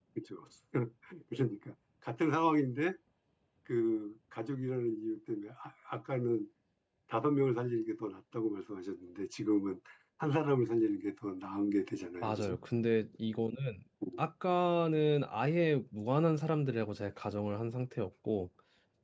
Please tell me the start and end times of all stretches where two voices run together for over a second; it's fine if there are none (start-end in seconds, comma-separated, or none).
none